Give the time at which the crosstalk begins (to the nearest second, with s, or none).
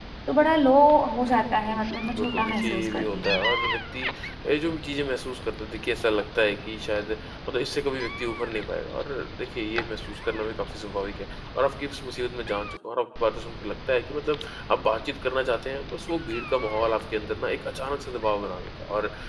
2 s